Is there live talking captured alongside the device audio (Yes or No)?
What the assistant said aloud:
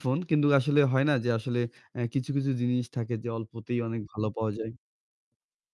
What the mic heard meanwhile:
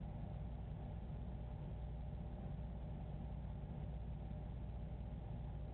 No